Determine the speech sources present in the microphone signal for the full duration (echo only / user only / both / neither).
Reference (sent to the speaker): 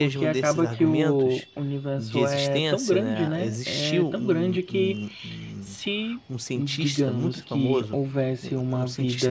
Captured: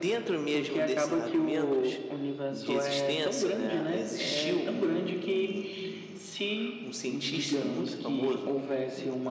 echo only